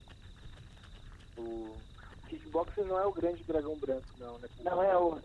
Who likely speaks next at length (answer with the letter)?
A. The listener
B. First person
A